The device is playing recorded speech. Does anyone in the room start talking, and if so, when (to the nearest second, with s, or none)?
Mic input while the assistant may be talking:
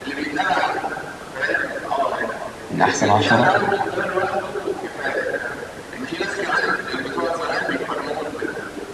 3 s